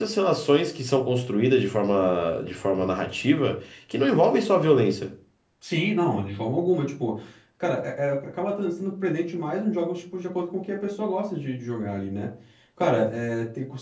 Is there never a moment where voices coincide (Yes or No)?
Yes